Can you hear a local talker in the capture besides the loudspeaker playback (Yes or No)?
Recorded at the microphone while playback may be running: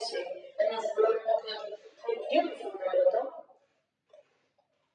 No